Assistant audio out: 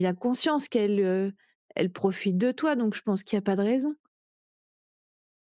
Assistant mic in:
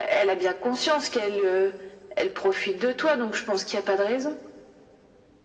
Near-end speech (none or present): none